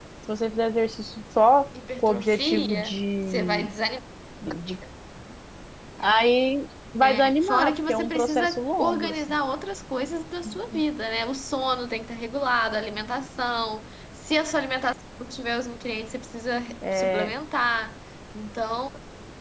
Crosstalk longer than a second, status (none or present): present